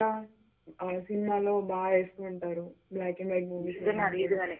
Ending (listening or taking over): taking over